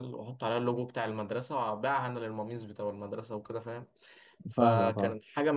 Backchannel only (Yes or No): Yes